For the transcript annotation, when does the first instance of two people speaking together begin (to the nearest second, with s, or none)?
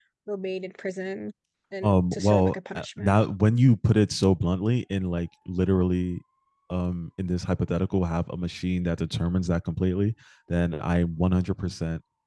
2 s